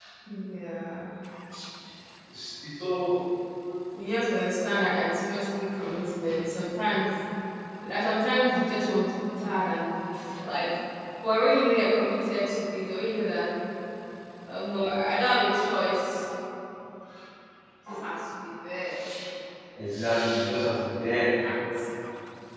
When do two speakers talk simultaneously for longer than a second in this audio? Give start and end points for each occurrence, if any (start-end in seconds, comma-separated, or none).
none